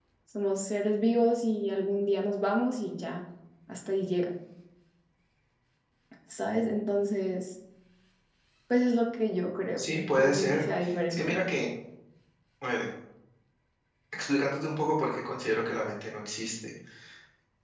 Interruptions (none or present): present